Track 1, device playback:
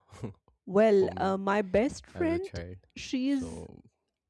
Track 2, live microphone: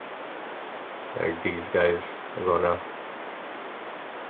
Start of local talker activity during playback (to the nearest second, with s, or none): 1 s